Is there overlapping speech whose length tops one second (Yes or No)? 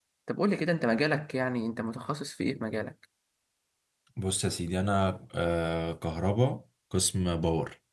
No